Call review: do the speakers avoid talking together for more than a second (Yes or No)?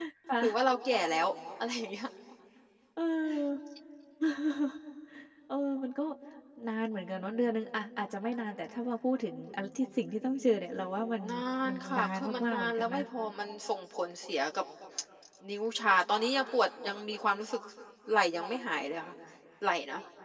No